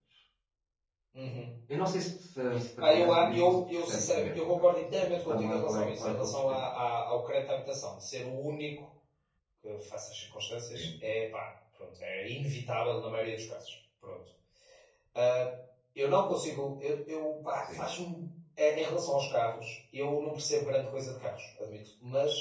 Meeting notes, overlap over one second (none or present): present